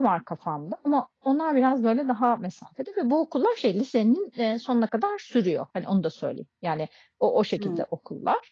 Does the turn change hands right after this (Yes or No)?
No